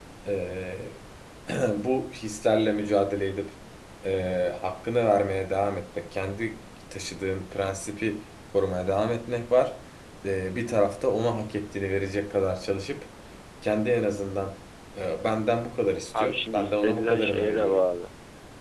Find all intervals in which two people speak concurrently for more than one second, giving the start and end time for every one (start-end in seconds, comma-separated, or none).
16.2-17.8